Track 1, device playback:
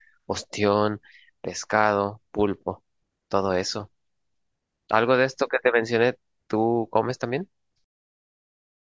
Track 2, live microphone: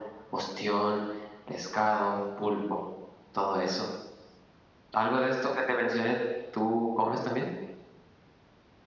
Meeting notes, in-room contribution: none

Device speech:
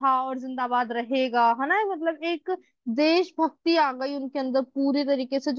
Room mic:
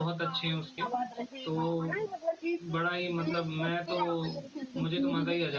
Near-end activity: present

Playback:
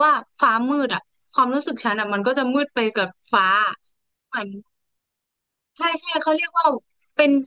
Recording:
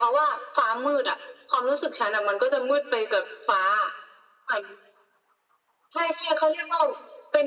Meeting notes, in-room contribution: none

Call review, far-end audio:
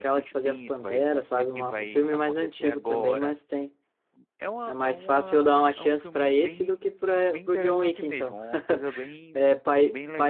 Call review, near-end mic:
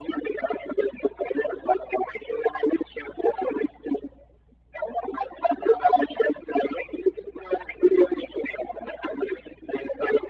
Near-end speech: none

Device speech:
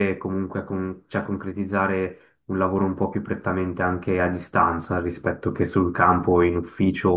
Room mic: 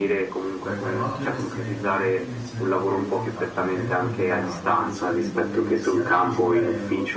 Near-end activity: present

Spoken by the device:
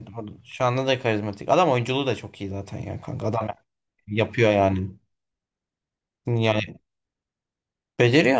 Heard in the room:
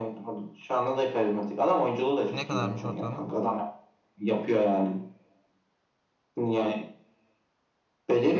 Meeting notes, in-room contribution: present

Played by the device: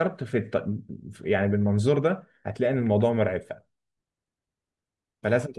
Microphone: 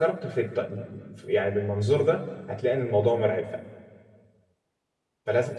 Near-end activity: none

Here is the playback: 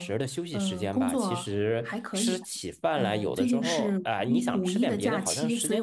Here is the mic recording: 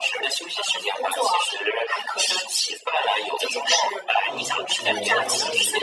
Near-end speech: present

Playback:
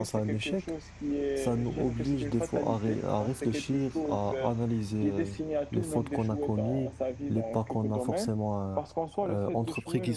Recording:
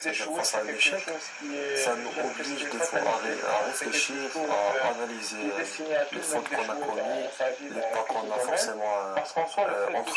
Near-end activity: none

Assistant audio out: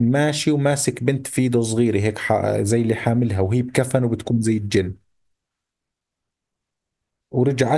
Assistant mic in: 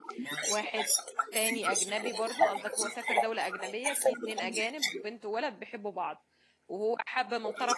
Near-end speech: present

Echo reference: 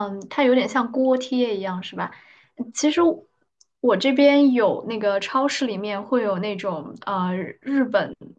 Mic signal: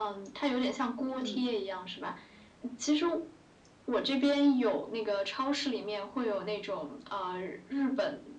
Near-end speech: present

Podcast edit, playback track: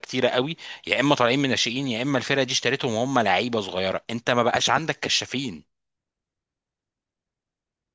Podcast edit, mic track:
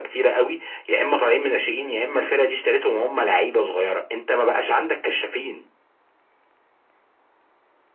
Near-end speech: none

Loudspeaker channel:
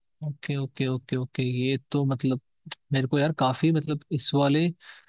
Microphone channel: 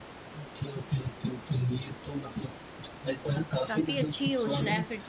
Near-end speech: present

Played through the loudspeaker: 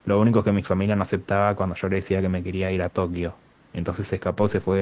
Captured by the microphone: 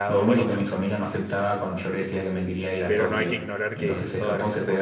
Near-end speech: present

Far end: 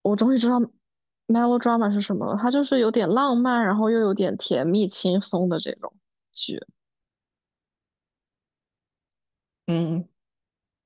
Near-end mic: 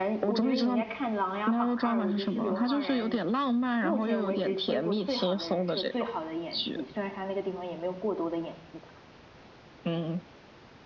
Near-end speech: present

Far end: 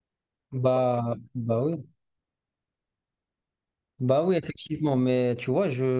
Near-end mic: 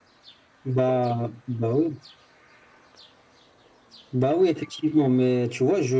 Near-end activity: none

